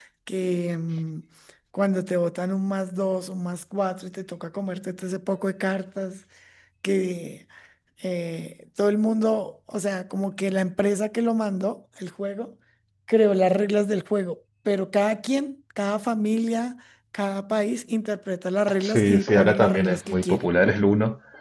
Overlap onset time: 18.8 s

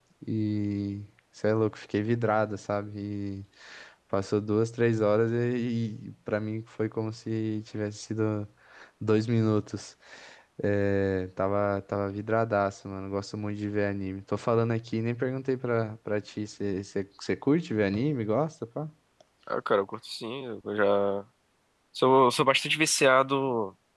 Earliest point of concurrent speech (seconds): none

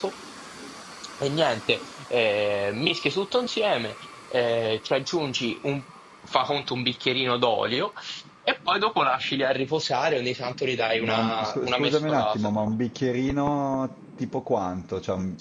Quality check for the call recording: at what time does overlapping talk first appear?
10.9 s

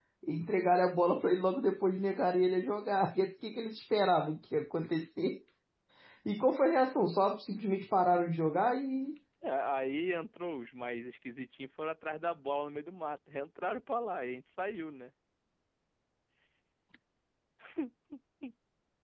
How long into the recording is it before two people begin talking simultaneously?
none

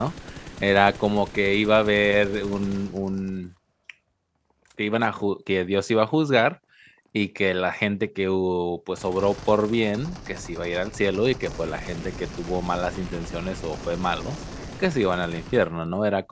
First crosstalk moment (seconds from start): none

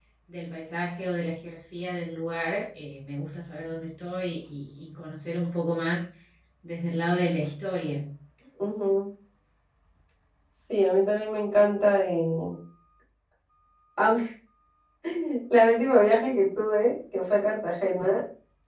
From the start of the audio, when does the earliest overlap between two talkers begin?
none

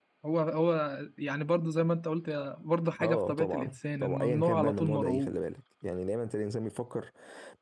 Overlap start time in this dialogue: 3.0 s

